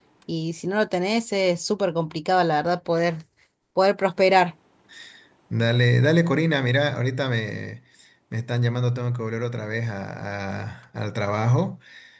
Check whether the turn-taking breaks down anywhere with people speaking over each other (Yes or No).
No